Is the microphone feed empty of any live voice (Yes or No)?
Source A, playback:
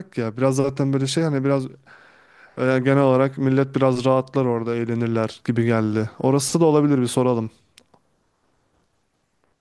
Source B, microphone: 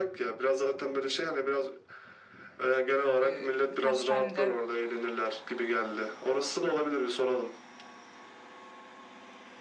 No